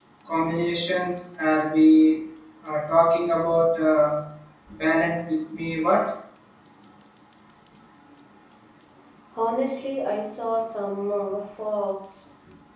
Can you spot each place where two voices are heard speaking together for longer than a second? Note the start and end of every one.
none

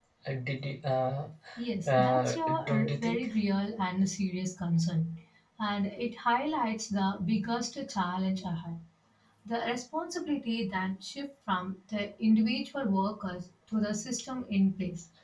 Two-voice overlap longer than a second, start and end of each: 2.0-3.3

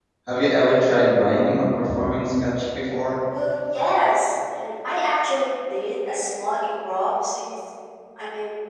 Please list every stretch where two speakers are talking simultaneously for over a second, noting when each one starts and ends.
none

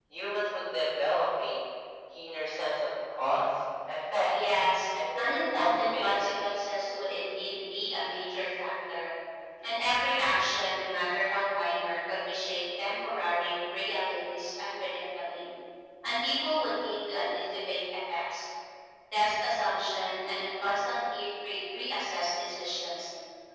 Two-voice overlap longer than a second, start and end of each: 5.2-6.4

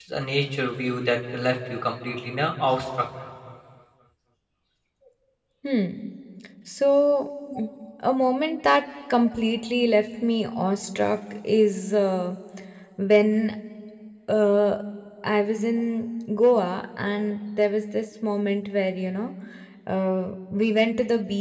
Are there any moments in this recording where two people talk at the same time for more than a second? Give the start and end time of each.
none

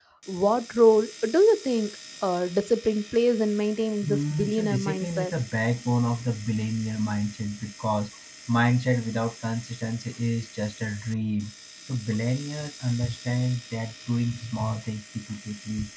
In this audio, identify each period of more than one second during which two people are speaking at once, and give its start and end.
4.0-5.3

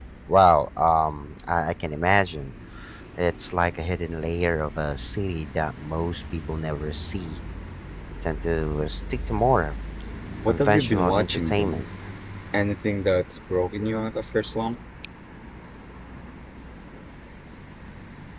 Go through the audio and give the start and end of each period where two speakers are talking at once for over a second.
10.5-11.8

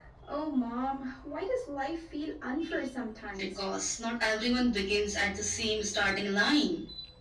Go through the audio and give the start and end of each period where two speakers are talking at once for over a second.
none

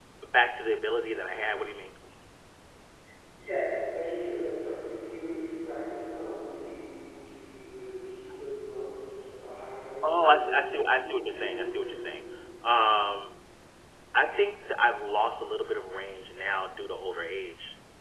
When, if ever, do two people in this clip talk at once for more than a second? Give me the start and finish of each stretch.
10.1-11.9

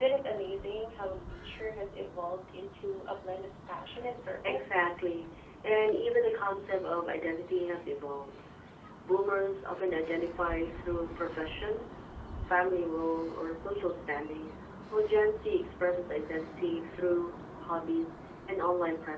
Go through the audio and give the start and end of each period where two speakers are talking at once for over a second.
none

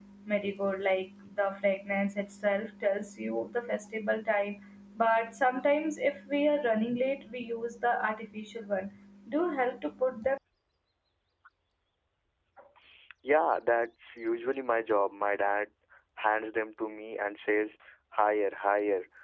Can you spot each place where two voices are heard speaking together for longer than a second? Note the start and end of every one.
none

